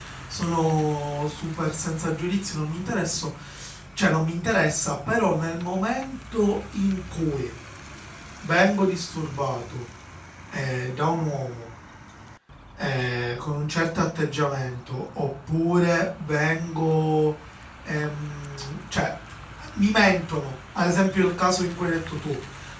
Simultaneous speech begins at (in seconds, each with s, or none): none